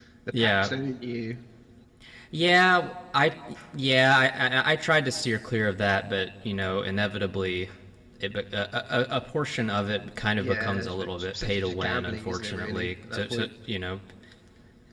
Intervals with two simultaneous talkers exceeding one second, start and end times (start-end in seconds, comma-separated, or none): 10.4-13.5